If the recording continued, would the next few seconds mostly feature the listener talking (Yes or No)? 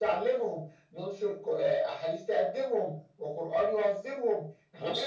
Yes